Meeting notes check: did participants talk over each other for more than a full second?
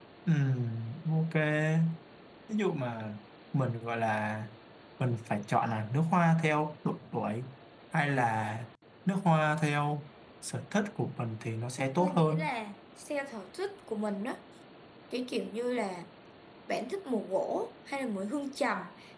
No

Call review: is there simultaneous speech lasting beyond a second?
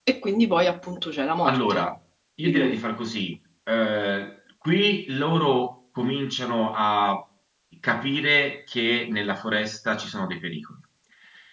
No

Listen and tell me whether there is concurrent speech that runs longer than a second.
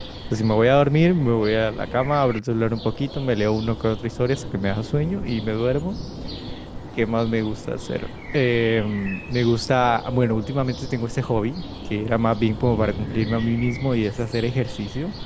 No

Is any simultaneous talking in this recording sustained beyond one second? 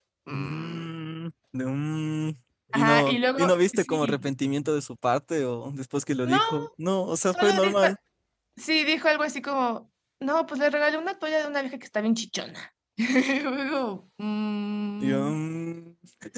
Yes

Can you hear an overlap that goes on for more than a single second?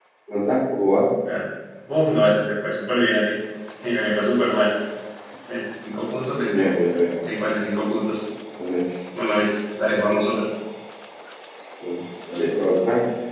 No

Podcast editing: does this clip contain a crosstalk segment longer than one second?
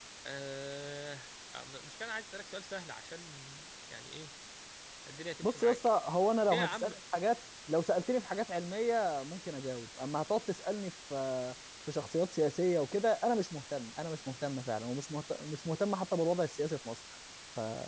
No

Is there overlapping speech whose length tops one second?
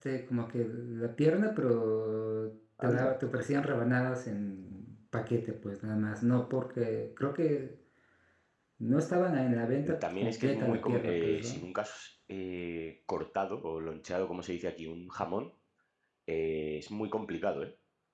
Yes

